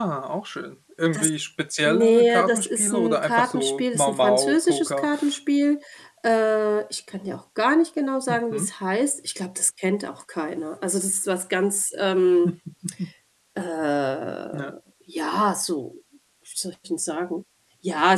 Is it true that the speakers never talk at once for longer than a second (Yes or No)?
No